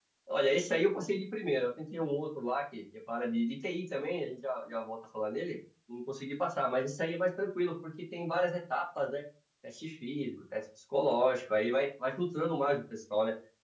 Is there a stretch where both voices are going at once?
No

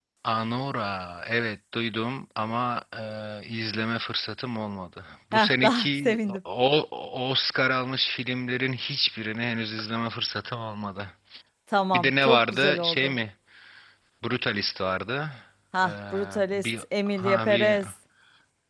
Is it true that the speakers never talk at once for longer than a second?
No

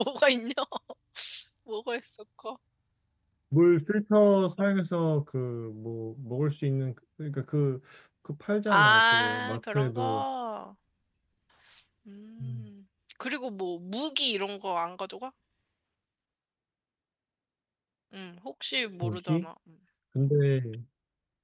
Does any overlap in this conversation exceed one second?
Yes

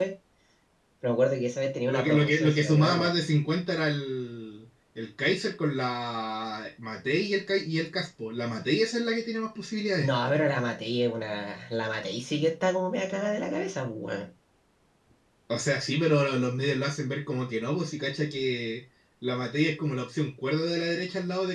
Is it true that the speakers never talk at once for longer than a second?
No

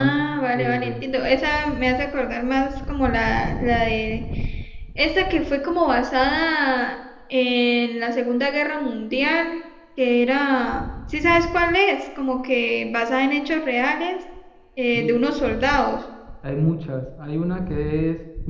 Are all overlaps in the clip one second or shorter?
Yes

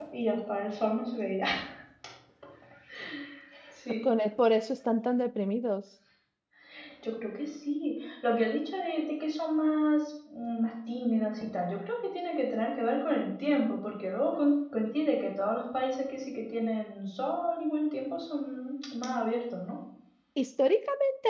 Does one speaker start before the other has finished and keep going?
No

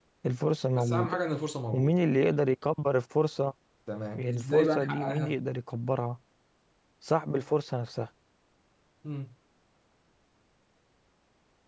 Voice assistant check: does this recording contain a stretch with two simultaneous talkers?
Yes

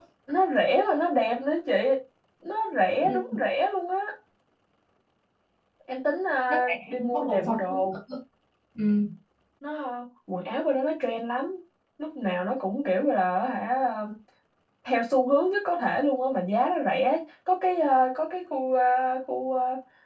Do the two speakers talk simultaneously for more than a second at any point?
Yes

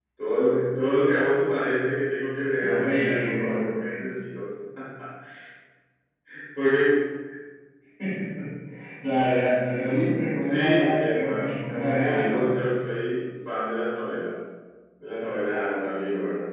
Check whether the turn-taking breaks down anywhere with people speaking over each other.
Yes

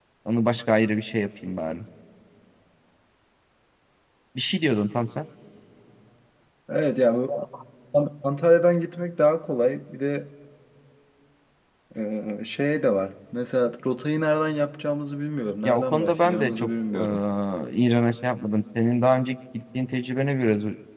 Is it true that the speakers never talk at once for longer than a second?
No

